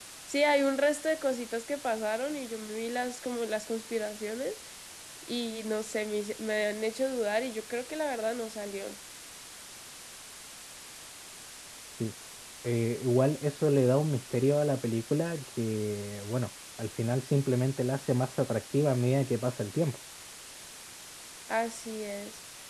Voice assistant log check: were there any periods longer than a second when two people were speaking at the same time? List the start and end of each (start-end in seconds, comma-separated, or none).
none